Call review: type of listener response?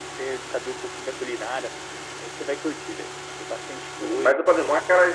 taking over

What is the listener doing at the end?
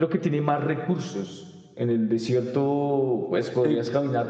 listening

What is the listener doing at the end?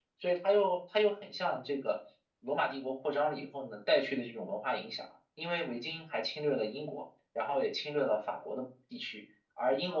listening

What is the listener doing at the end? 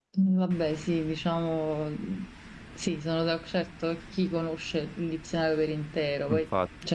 listening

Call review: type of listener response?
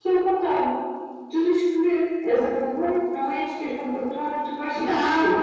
taking over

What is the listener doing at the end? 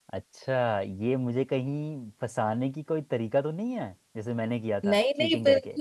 taking over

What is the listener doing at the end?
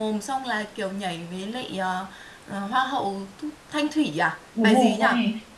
taking over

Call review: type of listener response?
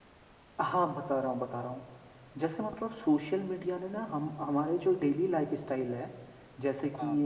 listening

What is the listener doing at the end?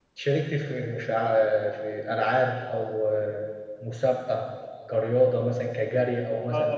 taking over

